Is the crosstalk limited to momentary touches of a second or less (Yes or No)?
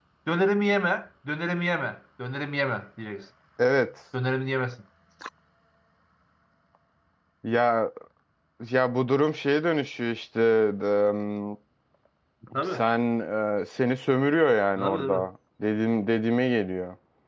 Yes